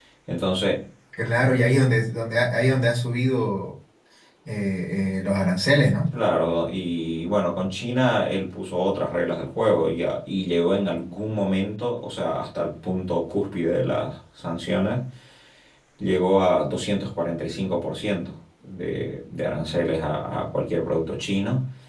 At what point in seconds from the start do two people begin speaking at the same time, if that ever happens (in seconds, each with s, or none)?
none